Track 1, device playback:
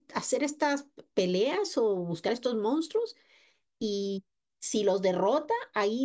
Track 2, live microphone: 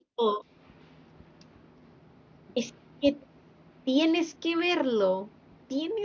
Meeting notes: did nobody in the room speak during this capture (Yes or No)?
No